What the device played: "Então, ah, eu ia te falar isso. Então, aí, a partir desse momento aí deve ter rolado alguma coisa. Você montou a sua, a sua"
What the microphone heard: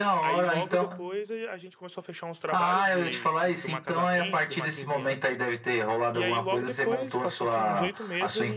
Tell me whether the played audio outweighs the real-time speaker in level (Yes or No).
Yes